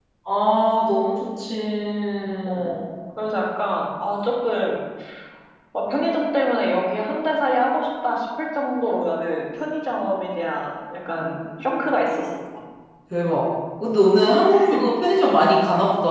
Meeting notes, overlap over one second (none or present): none